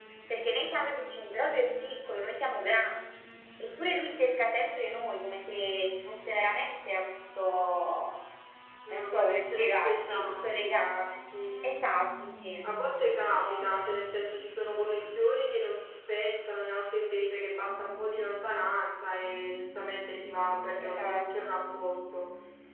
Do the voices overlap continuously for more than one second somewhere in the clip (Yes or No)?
Yes